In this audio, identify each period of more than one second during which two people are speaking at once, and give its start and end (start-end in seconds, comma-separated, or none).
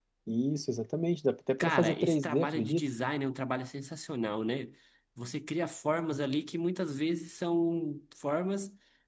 1.6-2.8